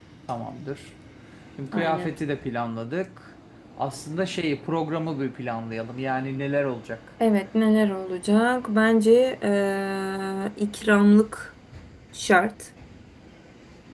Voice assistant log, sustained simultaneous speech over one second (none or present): none